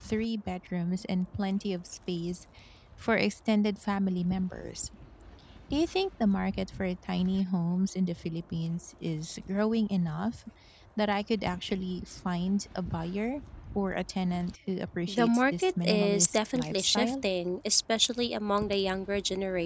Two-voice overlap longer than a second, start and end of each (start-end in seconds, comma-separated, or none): 15.1-17.2